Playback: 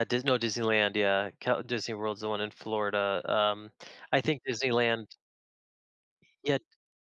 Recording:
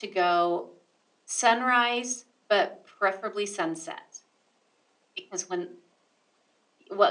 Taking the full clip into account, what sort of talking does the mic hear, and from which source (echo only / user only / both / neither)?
user only